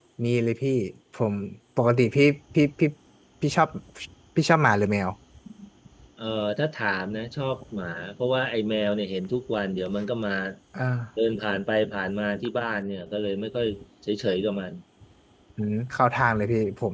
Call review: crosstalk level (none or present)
none